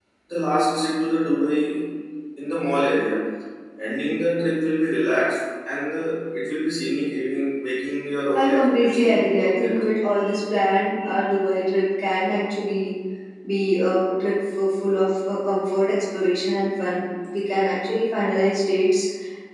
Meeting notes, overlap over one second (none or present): present